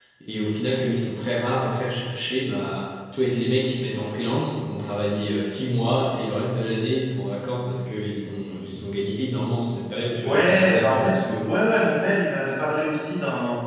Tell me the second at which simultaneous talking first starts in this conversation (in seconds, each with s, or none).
10.2 s